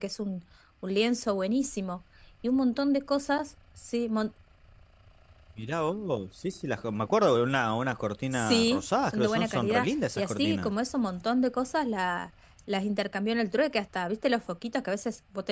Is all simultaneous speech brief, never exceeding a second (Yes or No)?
No